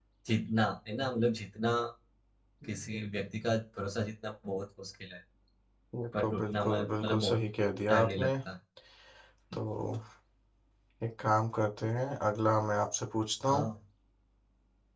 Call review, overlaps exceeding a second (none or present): present